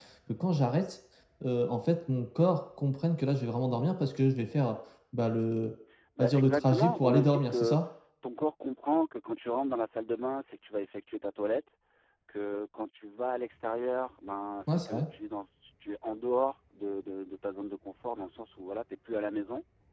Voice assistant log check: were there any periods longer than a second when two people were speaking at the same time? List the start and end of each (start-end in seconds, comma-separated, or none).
6.2-7.8